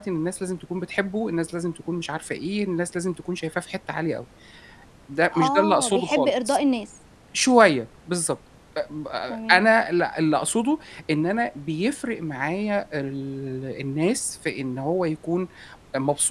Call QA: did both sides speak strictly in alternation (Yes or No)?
No